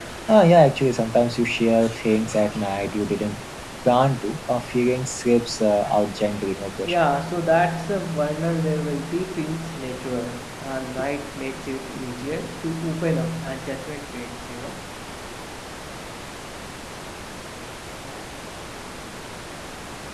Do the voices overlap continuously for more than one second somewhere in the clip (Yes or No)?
No